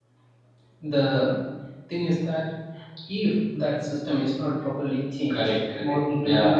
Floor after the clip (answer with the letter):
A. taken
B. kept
A